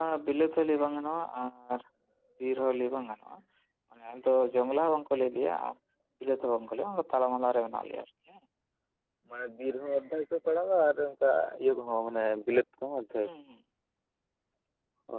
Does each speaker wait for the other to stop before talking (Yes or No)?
Yes